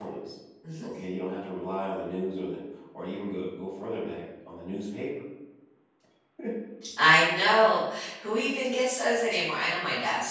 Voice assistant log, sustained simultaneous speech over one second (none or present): none